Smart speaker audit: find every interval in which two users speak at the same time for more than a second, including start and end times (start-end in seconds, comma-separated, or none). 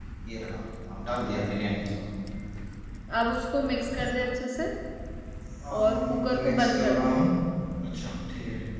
5.8-7.1